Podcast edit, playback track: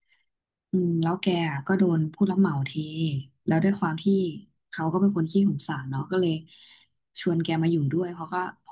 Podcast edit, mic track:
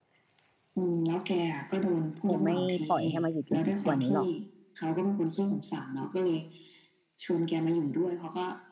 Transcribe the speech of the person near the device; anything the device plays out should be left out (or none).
คงไม่ปล่อยให้มาอยู่จนถึงทุกวันนี้หรอก